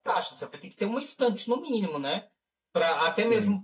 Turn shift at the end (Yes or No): No